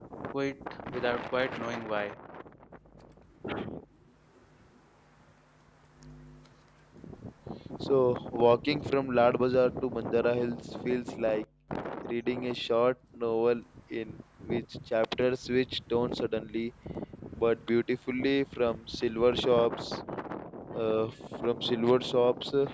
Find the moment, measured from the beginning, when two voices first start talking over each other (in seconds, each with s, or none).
none